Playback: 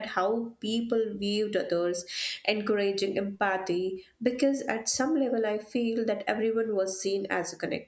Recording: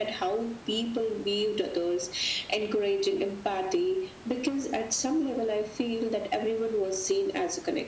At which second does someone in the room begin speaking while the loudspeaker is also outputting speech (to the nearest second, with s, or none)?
none